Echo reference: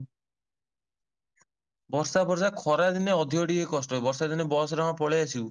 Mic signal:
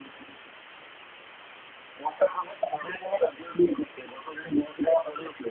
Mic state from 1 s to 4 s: echo only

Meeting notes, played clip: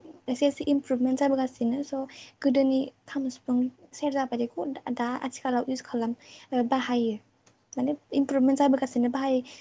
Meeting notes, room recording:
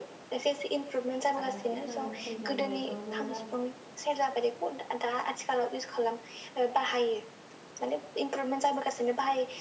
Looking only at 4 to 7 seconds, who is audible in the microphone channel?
echo only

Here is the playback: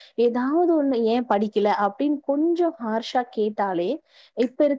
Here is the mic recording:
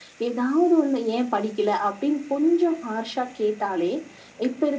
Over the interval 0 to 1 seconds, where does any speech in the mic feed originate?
echo only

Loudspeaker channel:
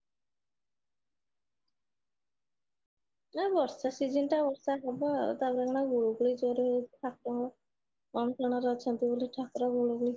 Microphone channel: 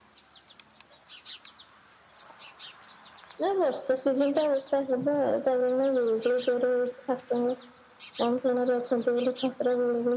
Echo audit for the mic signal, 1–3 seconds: neither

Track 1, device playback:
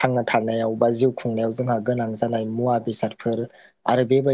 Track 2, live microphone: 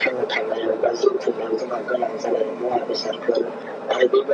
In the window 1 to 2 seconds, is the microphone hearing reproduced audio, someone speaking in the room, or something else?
echo only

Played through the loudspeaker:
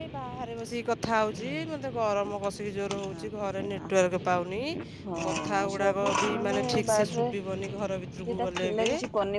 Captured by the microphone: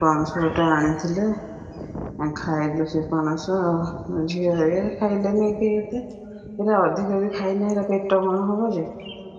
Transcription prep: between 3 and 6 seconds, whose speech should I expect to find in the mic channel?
user only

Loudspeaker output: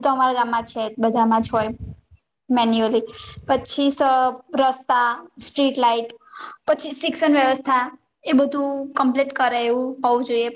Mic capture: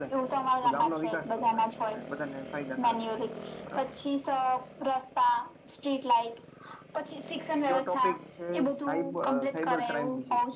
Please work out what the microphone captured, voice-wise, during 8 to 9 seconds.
both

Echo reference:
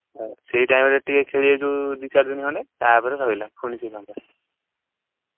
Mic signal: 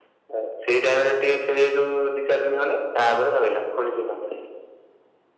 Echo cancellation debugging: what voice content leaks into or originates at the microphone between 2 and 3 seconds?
echo only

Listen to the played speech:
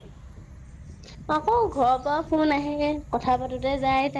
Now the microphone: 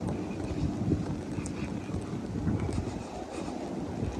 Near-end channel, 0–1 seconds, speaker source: neither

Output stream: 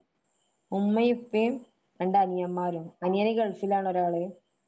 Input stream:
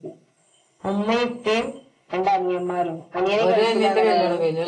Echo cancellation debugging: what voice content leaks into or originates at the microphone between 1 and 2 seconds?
echo only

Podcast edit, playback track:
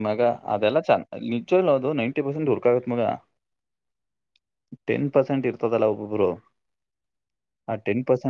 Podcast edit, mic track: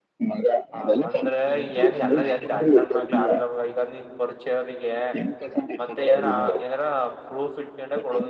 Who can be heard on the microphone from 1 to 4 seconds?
both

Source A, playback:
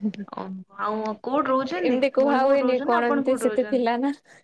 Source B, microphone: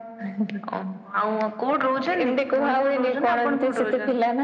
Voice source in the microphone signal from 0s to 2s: echo only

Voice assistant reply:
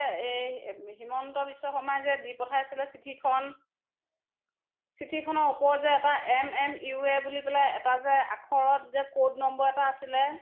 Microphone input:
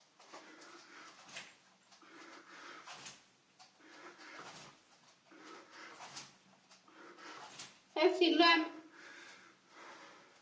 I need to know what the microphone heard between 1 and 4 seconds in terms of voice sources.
neither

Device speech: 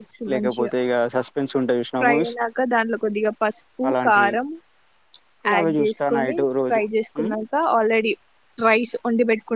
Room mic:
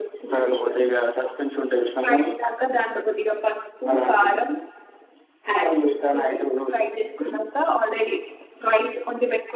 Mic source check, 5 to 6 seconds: echo only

